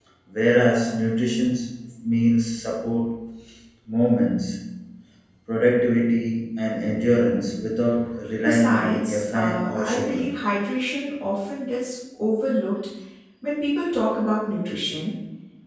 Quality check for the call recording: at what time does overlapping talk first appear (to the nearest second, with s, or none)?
8 s